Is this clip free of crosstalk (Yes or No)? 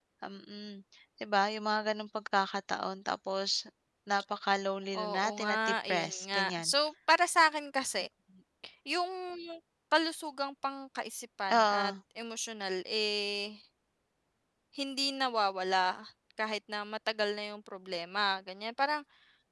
No